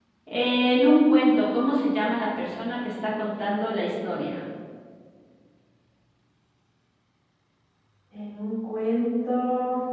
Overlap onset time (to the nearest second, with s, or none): none